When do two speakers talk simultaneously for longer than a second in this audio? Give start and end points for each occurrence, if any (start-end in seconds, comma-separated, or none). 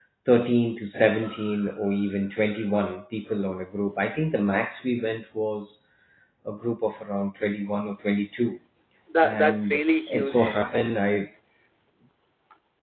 9.2-10.6